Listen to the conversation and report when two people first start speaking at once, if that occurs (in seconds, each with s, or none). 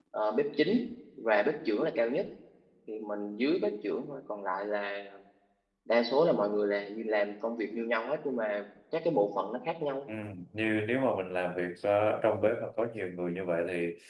none